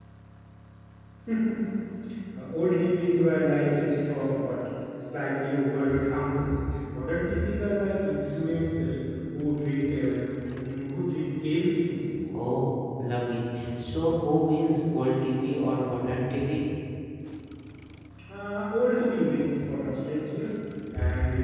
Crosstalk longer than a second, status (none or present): none